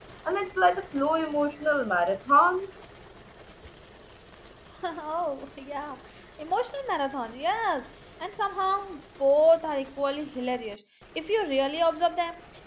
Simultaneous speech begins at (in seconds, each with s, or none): none